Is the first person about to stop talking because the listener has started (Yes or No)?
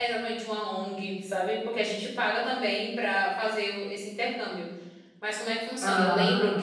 No